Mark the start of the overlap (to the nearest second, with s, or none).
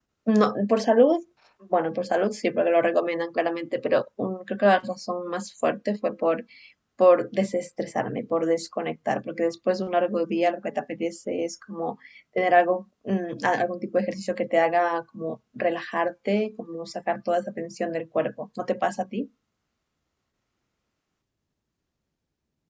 none